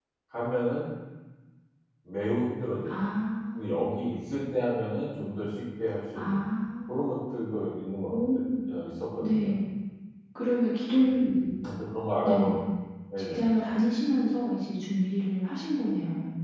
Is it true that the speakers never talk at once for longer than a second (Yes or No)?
Yes